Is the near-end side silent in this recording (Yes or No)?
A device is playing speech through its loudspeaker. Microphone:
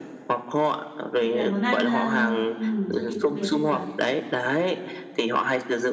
No